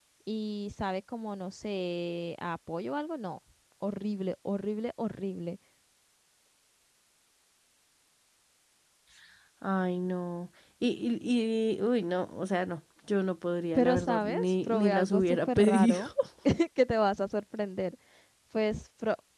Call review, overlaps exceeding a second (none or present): present